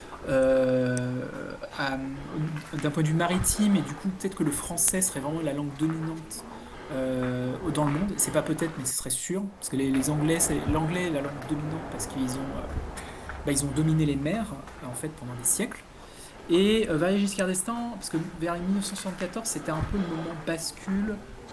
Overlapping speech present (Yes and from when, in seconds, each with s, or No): No